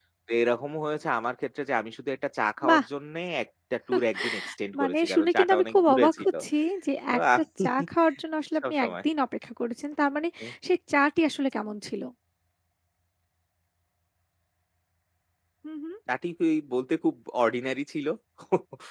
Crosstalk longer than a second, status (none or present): present